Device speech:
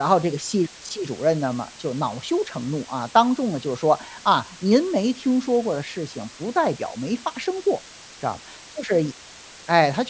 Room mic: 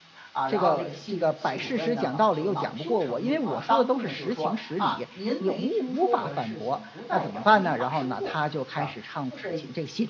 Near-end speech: present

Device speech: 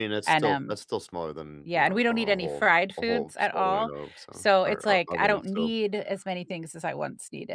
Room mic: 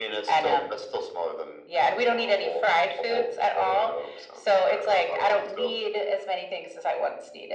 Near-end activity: none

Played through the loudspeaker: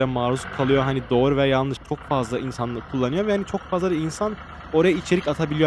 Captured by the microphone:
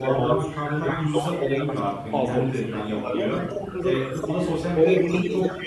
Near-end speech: present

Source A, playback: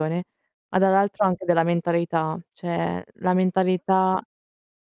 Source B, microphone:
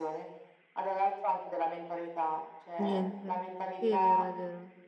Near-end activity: present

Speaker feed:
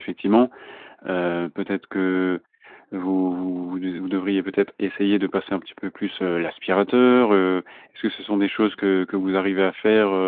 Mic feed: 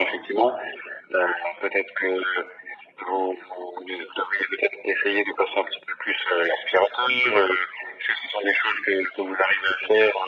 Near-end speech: none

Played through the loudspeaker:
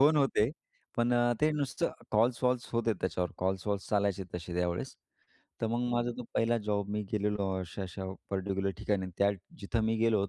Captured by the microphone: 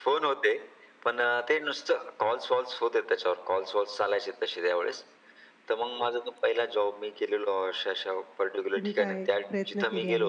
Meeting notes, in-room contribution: present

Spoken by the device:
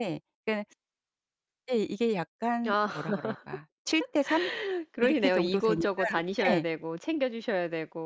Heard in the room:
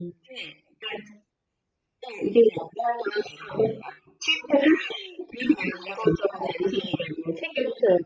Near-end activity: none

